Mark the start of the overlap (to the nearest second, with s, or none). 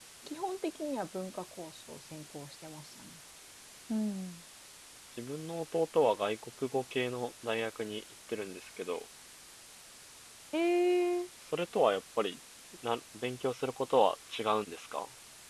none